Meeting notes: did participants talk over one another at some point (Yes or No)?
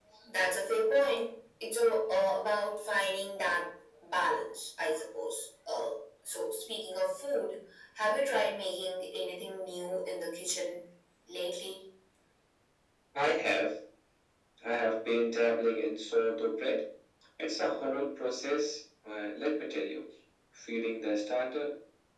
No